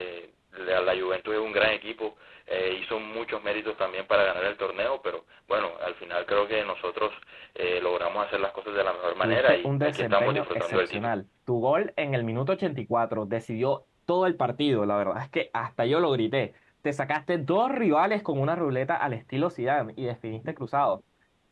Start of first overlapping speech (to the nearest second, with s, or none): 9 s